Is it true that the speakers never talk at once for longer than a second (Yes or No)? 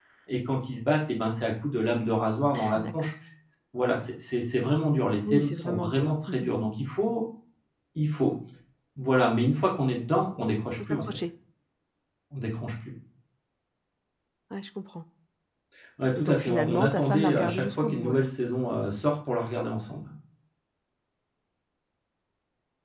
No